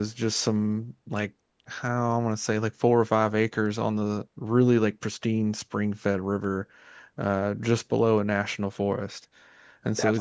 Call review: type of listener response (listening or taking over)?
listening